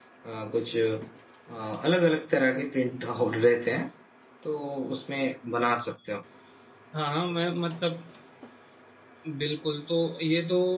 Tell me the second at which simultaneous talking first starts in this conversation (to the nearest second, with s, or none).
none